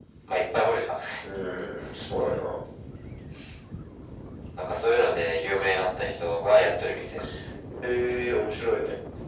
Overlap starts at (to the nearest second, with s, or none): none